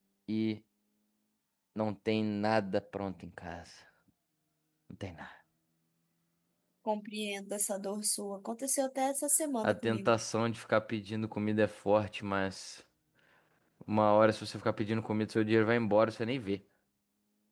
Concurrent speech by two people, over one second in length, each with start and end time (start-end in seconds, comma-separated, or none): none